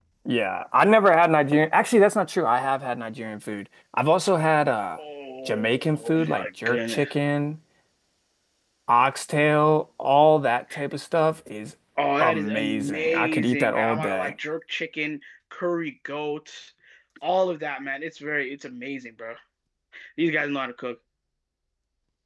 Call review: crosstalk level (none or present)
present